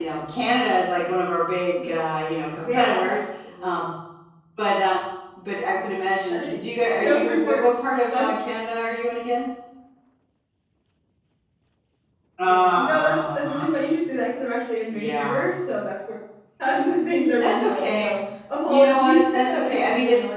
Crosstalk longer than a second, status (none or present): present